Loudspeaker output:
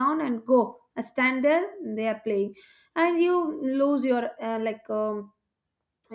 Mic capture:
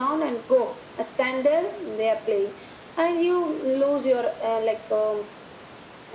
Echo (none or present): present